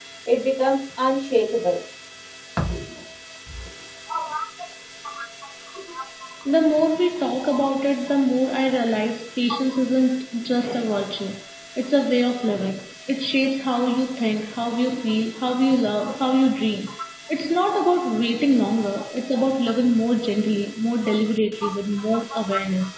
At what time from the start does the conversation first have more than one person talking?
none

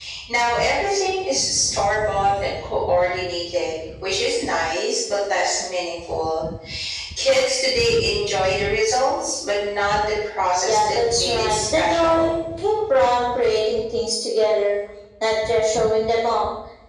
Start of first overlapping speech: 10.7 s

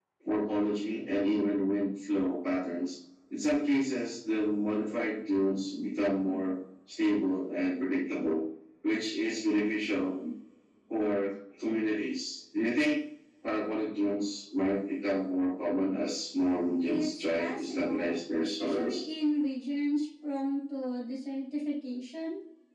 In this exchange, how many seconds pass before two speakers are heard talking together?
16.8 s

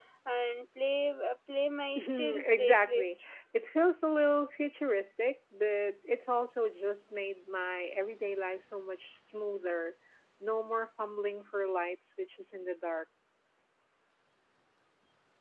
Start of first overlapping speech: 1.9 s

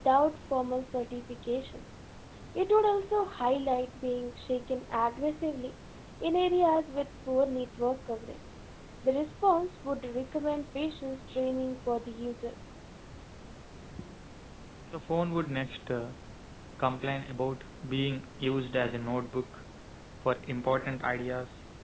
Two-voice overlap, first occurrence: none

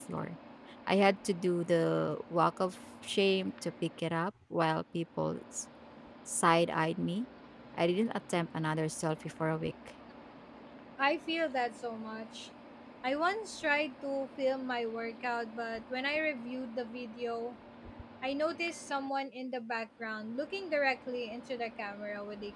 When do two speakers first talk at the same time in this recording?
none

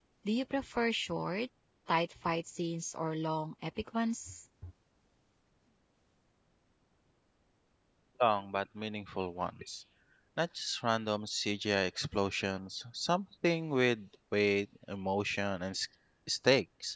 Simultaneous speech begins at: none

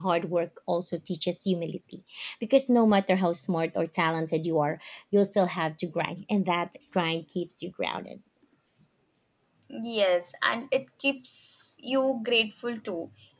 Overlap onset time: none

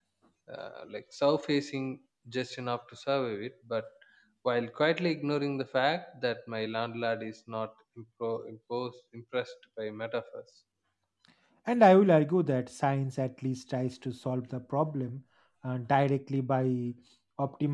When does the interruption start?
none

